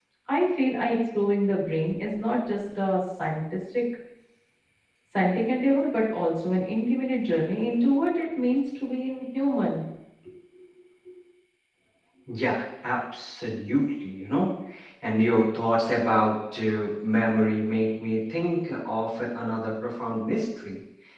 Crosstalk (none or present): none